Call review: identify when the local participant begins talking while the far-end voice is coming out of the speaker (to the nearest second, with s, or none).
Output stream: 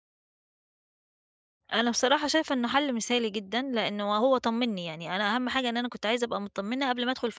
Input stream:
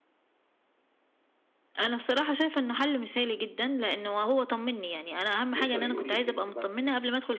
6 s